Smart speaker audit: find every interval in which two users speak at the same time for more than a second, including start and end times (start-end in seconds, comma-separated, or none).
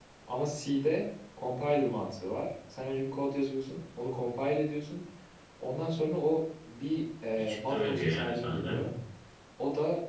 7.4-8.9